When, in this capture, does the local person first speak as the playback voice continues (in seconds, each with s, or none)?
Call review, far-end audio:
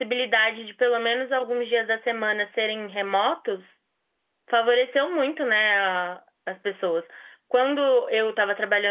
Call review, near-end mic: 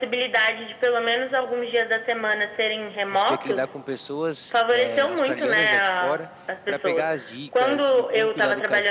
3.1 s